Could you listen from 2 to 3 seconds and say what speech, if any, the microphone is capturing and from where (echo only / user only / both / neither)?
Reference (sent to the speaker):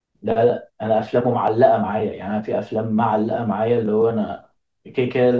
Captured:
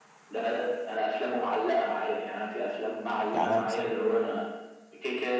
echo only